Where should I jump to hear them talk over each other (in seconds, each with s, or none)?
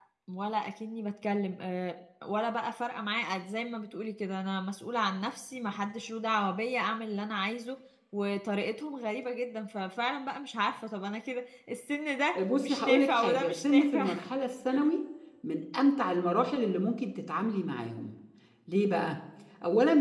12.3 s